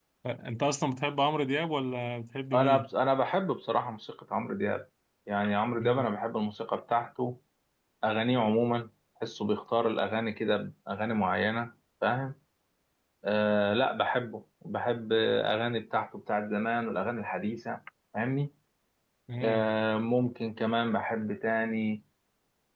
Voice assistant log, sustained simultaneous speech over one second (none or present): none